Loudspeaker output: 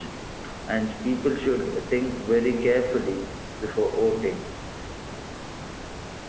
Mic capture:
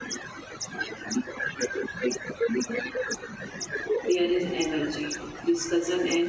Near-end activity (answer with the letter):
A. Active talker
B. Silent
A